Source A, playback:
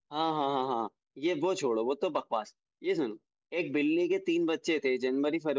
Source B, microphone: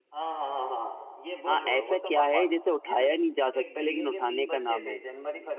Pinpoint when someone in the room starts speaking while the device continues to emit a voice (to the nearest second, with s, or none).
1 s